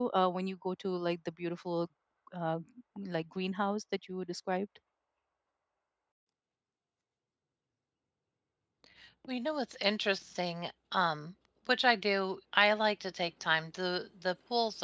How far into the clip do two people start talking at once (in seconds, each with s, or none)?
none